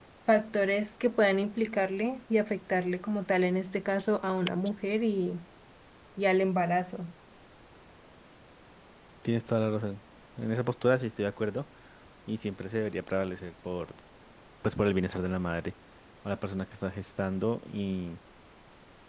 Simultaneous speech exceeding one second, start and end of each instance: none

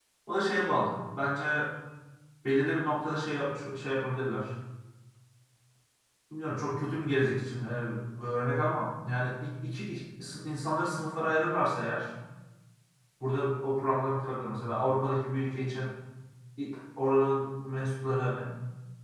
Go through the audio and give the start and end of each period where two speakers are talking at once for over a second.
none

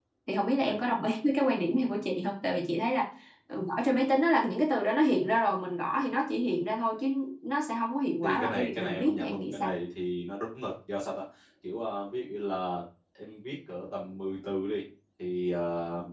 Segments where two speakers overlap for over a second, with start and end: 8.2-9.7

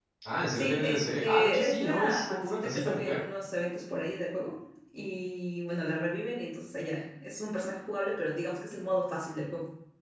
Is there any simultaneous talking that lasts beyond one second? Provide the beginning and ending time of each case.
0.6-3.2

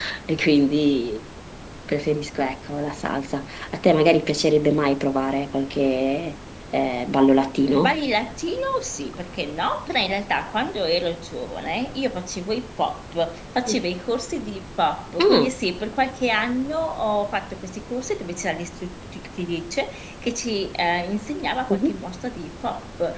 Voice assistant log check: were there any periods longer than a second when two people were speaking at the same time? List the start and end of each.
none

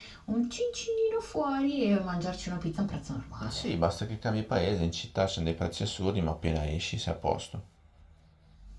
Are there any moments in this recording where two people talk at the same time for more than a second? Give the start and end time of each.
none

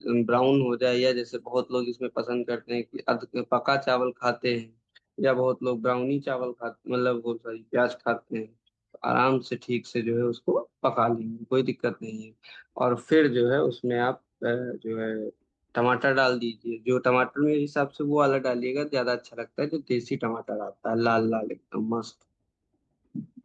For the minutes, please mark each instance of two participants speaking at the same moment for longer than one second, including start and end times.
none

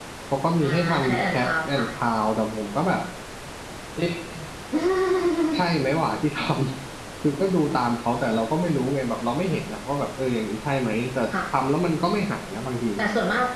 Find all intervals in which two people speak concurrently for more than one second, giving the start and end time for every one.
0.6-1.9

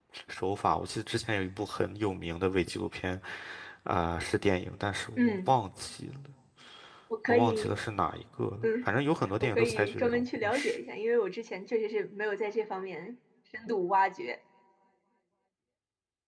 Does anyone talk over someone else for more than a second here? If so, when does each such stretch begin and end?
9.4-10.8

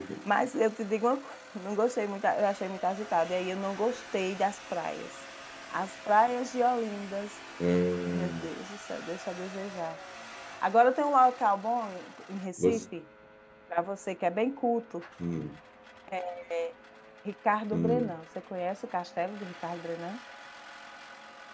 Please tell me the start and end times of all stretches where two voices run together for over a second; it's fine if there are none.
none

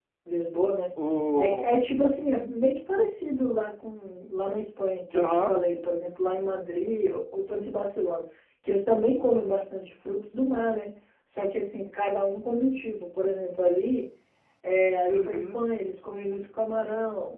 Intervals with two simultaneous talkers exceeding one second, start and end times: none

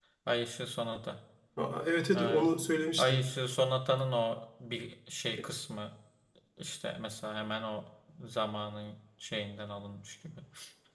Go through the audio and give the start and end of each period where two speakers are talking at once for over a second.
none

